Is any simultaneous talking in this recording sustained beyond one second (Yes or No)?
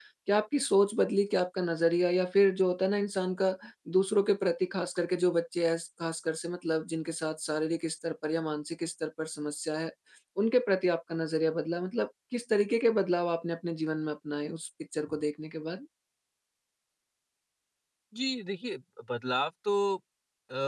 No